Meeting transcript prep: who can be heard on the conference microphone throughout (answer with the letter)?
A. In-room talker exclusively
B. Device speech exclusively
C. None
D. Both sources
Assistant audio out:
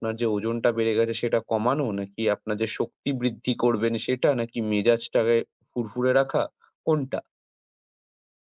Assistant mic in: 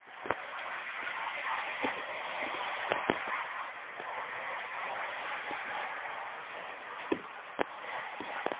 C